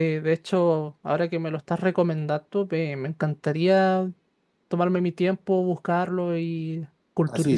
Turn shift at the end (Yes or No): Yes